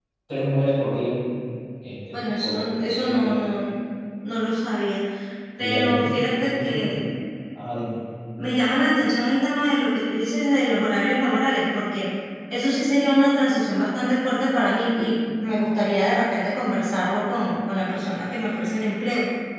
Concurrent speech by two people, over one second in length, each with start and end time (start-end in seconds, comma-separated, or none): 5.6-6.9